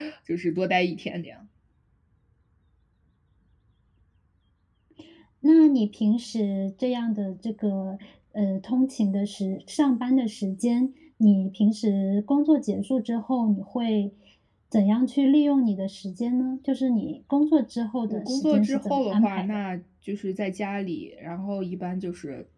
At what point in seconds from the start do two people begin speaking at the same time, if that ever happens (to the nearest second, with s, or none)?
18 s